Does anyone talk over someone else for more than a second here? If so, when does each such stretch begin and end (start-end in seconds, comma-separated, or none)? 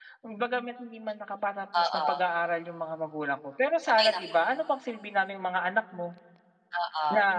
none